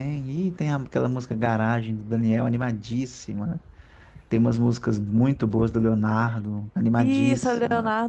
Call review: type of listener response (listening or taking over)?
taking over